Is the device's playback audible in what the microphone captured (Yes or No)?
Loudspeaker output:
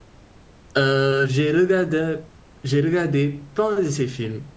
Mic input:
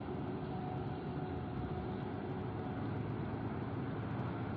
No